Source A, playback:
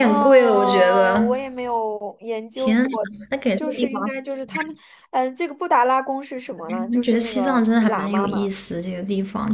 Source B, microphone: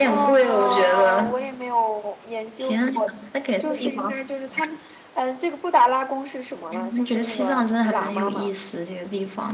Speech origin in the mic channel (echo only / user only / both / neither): echo only